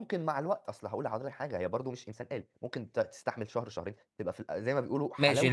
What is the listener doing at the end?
taking over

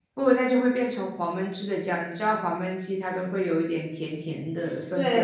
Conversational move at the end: taking over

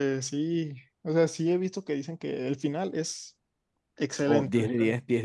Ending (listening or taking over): taking over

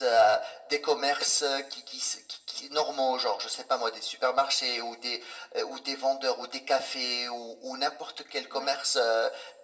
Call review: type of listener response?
listening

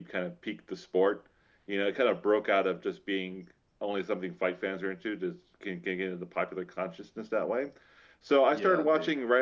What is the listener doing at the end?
listening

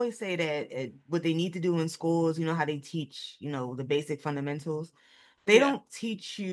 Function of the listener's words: listening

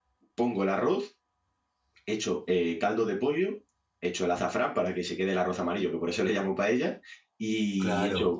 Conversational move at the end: listening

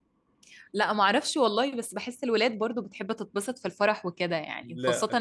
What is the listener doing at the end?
listening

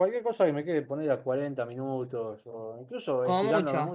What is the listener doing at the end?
listening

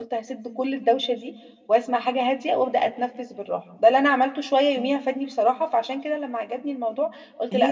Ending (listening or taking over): listening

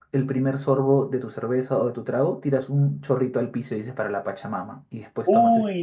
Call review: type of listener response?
taking over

